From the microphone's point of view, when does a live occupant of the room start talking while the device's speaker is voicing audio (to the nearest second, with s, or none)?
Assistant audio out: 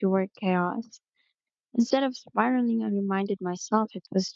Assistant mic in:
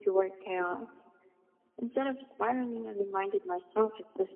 none